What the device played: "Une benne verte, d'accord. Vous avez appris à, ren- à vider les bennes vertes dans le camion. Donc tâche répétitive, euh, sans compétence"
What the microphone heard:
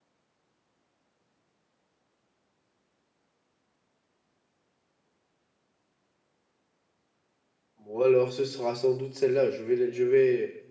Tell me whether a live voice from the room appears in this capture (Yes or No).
Yes